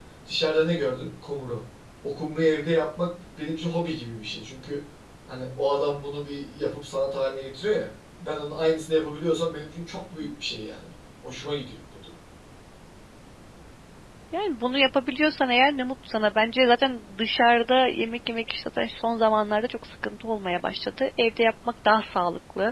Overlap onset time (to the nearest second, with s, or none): none